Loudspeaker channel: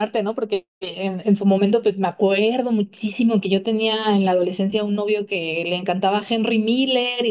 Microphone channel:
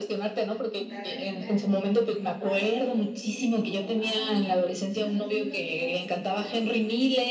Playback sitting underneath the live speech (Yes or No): No